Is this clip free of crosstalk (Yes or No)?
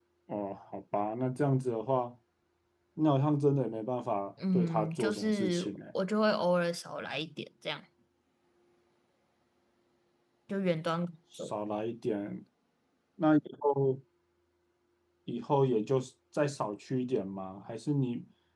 No